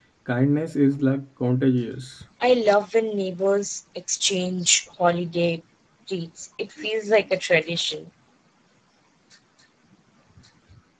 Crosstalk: none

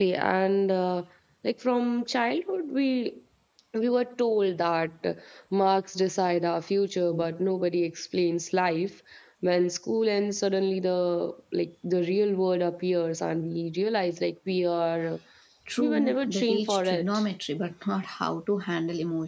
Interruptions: present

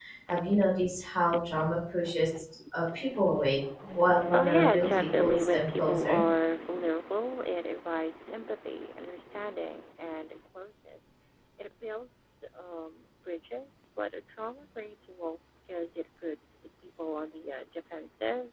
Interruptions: present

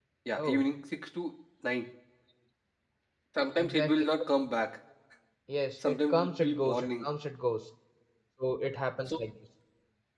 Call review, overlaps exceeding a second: present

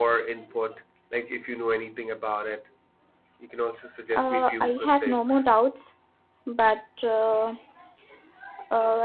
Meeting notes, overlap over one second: present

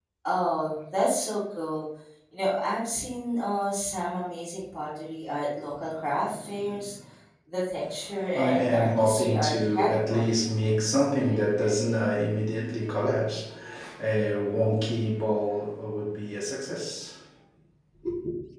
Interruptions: present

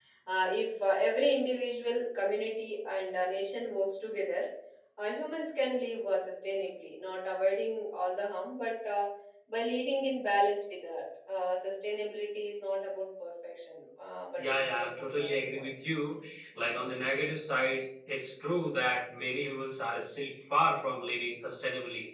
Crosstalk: present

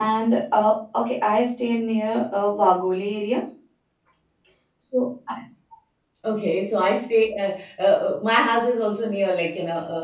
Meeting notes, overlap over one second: none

